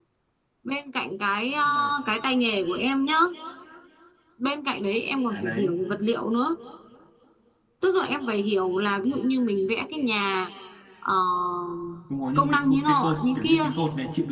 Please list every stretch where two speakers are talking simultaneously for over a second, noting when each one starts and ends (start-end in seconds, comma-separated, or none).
12.3-13.7